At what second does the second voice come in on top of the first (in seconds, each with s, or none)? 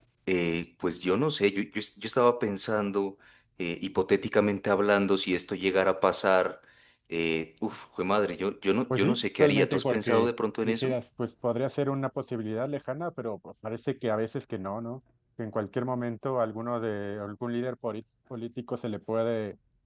8.9 s